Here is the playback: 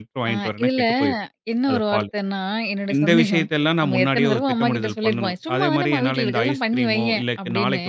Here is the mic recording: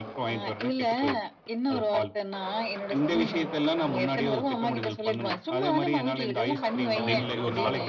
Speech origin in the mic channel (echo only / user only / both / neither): both